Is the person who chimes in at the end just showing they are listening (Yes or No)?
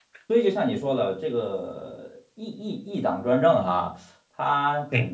Yes